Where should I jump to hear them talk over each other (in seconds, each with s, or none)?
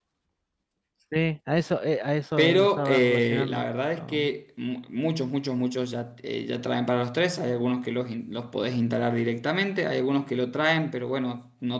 2.4 s